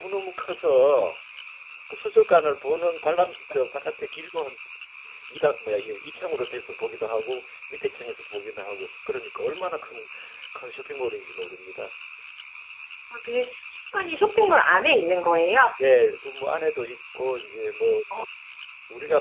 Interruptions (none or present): none